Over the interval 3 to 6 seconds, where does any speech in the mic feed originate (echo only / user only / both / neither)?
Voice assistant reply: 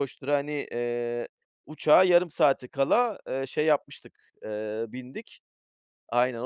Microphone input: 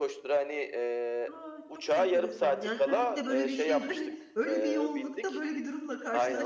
both